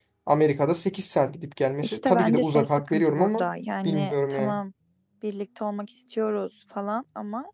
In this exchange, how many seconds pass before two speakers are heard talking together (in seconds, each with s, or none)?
1.8 s